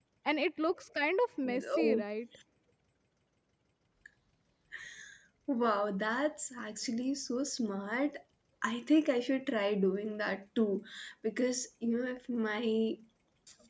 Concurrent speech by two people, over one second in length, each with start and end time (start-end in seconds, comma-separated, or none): none